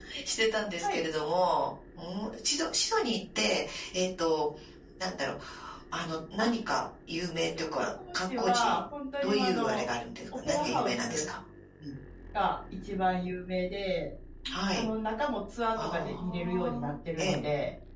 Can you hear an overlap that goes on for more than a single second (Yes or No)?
Yes